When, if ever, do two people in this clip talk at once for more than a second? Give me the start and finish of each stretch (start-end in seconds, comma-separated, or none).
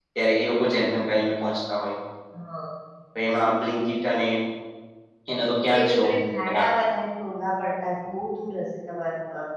none